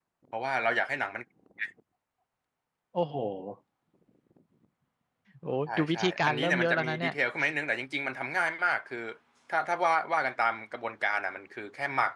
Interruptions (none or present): present